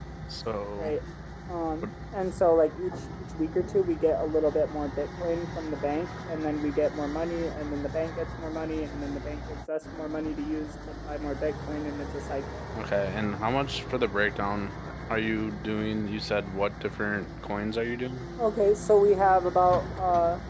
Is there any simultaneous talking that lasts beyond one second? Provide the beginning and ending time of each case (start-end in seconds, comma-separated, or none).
none